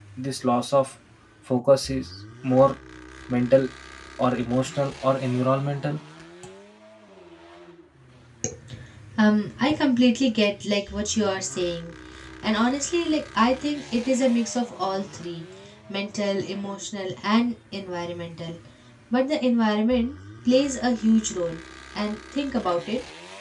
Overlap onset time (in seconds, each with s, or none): none